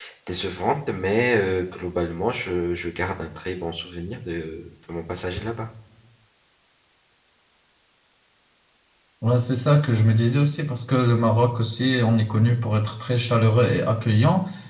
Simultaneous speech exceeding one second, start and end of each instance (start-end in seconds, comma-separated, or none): none